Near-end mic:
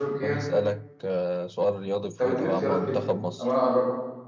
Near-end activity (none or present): present